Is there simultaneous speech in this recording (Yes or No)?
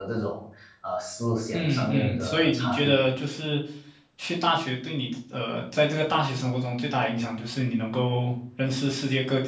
Yes